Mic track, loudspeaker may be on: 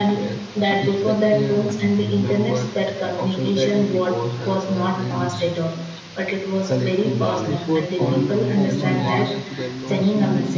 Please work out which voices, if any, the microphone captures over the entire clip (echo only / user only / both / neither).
both